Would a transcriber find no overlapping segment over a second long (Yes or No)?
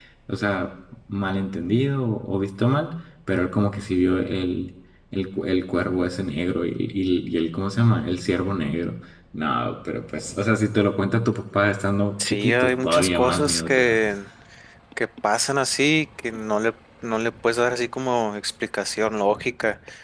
No